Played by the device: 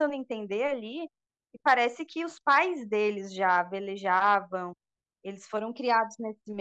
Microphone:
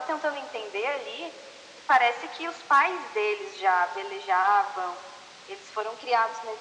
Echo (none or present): present